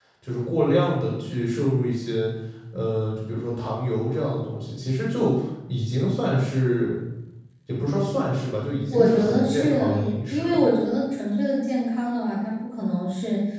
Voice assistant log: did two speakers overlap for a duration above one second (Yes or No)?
Yes